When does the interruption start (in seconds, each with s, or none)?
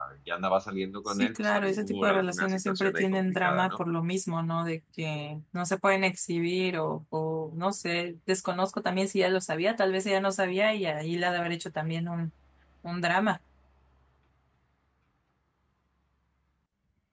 1.1 s